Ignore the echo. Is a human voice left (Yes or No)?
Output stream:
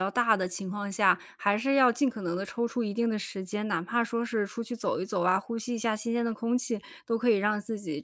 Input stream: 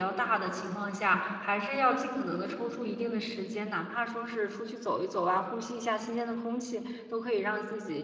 No